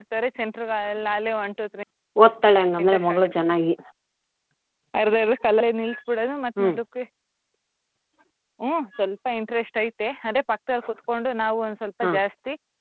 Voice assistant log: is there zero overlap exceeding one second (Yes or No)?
Yes